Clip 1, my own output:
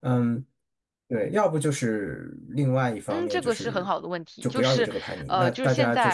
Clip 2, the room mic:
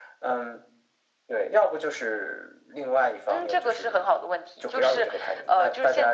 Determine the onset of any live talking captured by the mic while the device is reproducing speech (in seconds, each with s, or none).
none